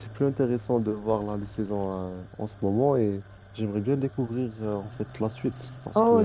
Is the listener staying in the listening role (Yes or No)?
No